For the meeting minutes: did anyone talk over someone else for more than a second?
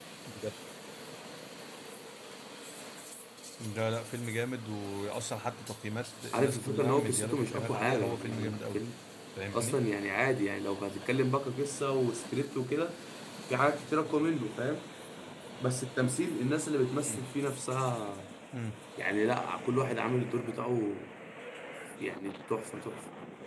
Yes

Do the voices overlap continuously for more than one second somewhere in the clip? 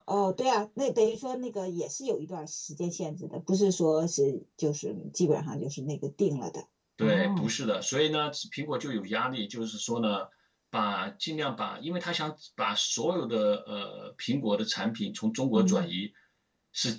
No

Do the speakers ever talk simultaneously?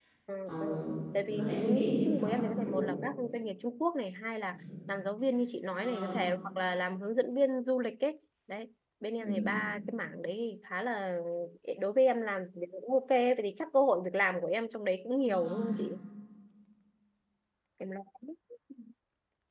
Yes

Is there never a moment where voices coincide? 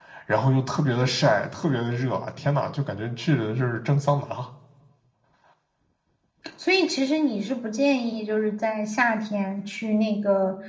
Yes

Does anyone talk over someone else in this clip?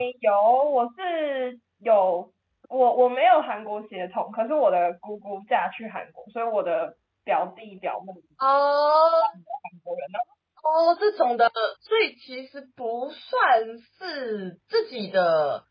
No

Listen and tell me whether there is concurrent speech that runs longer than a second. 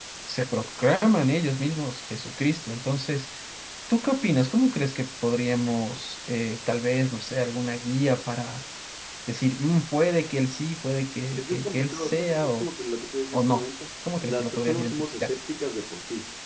Yes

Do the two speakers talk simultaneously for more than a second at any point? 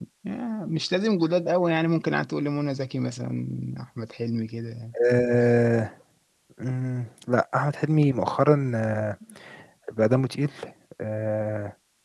No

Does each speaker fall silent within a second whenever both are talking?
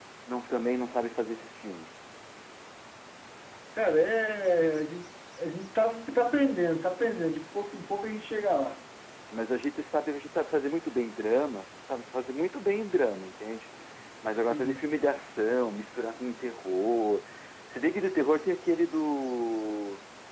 Yes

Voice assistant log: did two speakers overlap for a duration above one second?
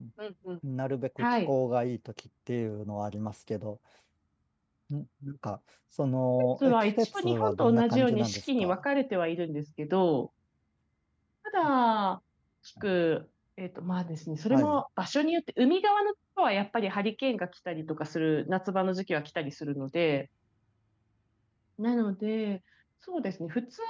Yes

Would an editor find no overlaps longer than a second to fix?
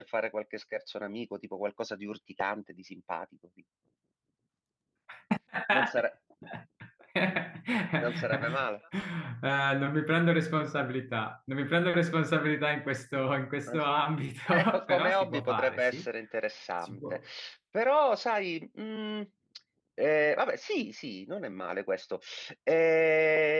No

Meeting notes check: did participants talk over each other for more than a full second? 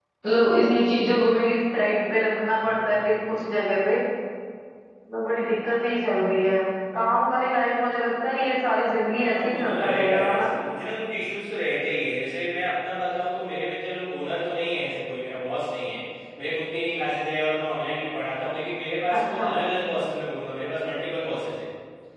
Yes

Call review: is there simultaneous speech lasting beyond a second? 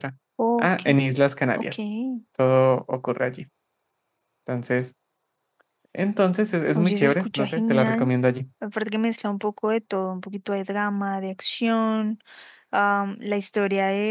Yes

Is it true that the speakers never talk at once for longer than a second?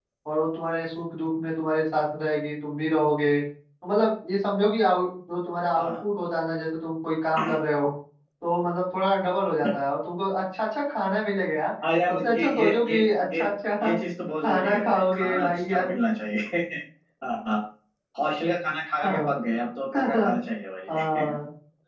No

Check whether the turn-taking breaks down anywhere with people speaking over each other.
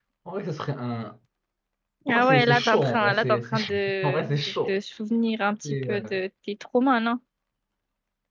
Yes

